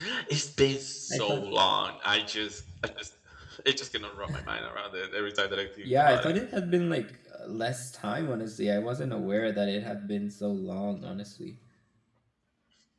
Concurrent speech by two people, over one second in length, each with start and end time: none

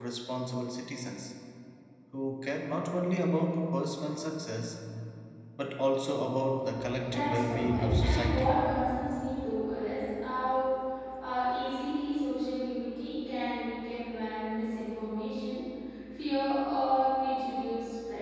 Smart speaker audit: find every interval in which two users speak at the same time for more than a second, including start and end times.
7.0-8.5

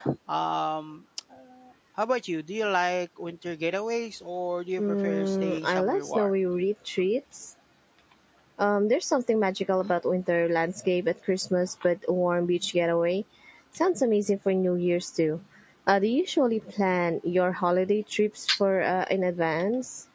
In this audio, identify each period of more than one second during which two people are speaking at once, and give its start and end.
4.8-6.3

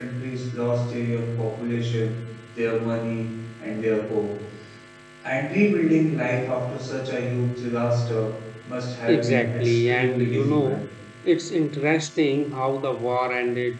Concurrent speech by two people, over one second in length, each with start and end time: 9.1-10.8

